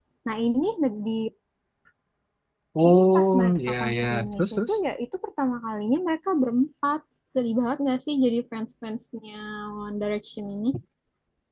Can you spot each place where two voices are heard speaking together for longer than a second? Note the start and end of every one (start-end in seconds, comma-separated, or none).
2.9-4.7